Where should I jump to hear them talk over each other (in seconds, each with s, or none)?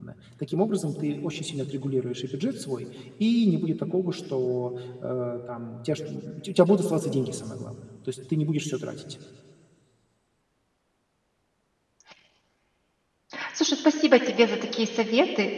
none